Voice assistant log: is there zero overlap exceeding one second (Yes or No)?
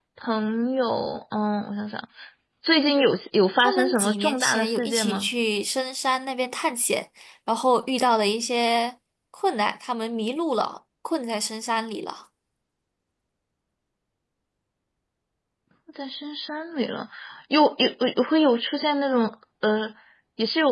No